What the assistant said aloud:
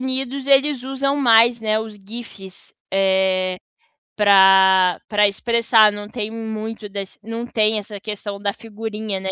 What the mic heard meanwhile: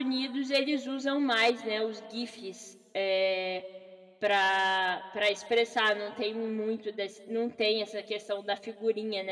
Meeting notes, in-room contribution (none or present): none